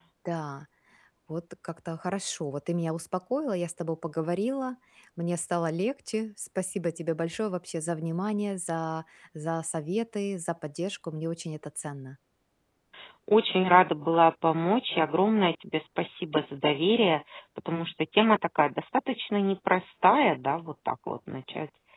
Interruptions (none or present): none